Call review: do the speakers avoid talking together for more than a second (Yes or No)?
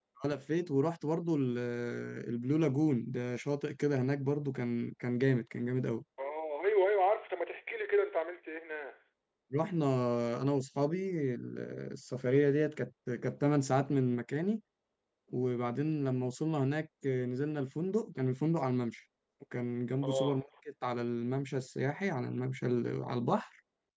Yes